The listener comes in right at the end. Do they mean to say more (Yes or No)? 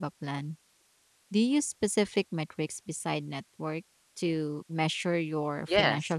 Yes